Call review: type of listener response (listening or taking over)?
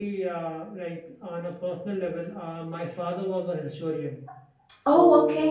listening